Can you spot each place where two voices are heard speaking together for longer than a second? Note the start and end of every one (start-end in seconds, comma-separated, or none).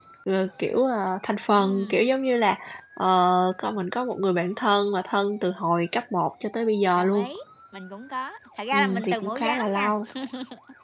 8.7-9.9